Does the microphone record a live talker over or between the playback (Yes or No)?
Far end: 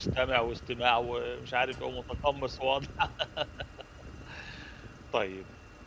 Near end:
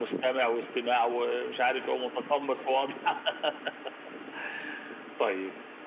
No